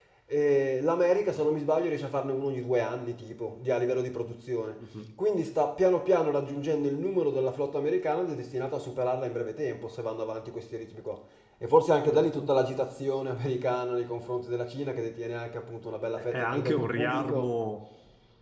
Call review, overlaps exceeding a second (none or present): present